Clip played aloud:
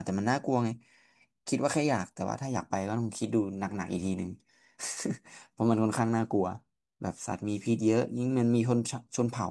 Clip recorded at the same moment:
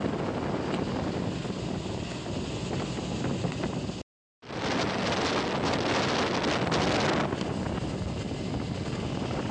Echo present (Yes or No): No